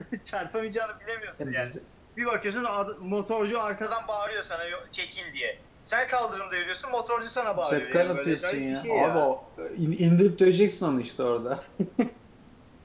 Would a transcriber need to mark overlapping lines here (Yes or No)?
Yes